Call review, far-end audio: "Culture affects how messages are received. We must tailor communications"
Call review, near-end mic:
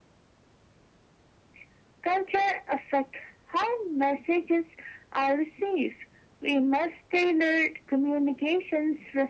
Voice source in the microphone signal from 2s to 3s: echo only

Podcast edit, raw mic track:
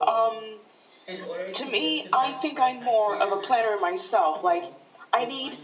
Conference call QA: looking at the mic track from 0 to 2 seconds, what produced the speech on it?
both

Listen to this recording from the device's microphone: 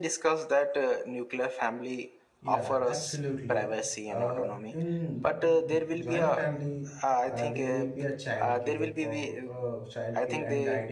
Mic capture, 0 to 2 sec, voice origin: echo only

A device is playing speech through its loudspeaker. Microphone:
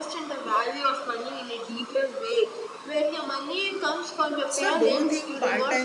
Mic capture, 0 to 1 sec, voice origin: echo only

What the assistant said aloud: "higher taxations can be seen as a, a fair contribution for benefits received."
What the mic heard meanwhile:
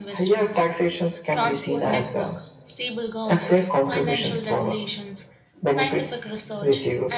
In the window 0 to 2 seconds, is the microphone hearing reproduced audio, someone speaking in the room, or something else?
both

